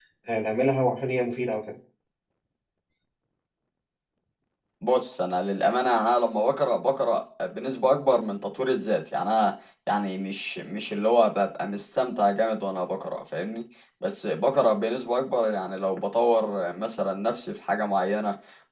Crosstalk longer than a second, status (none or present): none